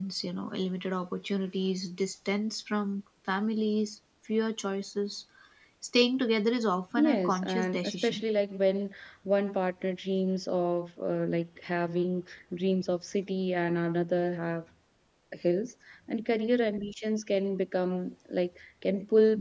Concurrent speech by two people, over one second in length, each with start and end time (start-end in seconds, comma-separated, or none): 7.0-8.2